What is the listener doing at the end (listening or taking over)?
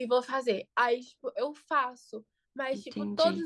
listening